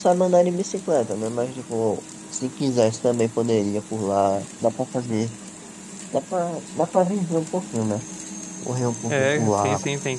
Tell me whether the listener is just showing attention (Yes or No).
No